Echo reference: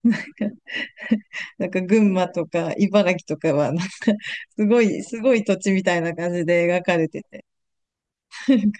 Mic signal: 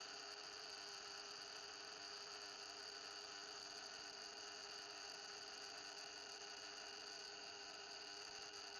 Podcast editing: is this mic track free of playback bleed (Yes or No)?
Yes